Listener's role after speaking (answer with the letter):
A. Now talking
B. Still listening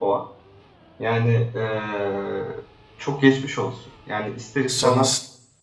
B